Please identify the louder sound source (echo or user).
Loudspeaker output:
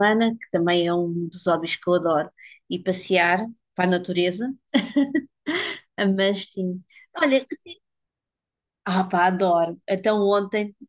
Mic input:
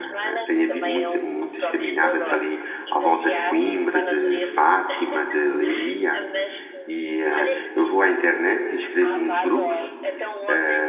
user